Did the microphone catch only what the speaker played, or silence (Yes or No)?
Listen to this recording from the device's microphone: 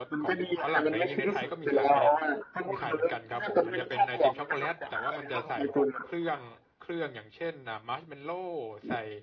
No